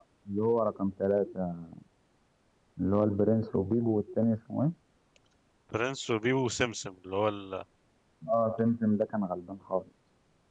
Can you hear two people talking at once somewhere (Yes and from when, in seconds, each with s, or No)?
No